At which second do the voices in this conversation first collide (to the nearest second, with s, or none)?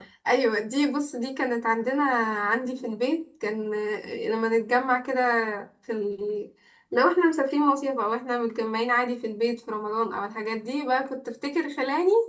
none